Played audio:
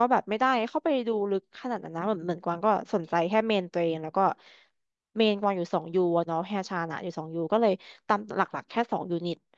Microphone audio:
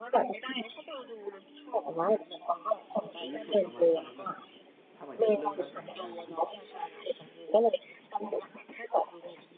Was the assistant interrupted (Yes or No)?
Yes